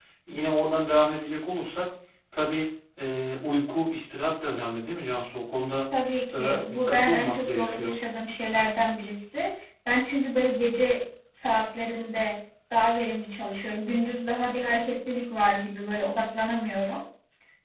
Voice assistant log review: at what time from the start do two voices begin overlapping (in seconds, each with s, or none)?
6.3 s